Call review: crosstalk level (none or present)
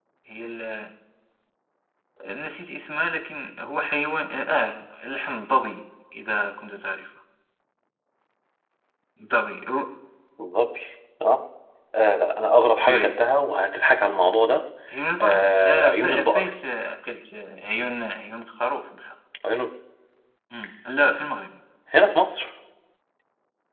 present